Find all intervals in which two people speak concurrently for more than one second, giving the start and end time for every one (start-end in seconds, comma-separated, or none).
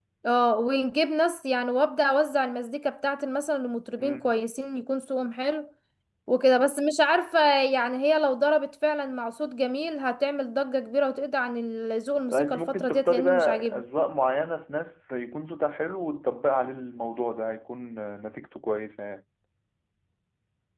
12.3-13.8